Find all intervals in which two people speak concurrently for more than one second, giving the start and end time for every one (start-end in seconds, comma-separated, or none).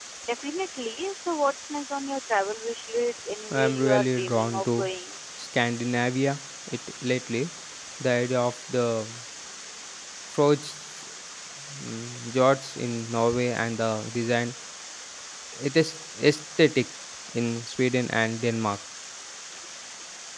3.5-4.9